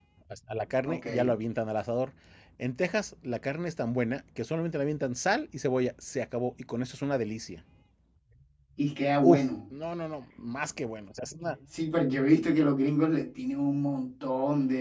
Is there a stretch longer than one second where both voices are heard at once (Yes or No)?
No